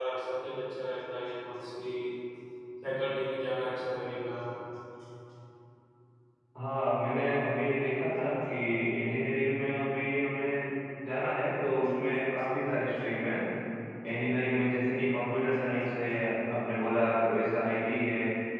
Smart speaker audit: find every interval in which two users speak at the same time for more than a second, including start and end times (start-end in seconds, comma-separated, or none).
none